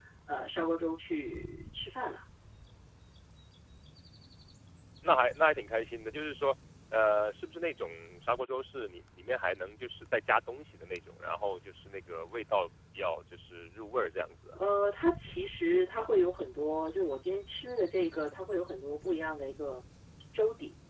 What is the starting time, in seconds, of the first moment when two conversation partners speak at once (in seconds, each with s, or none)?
none